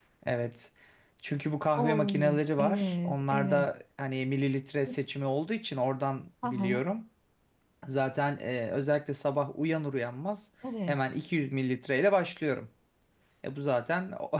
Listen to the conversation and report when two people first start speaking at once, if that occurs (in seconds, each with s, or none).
1.8 s